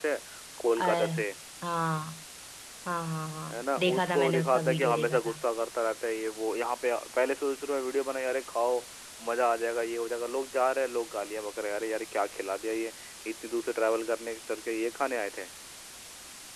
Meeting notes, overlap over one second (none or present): present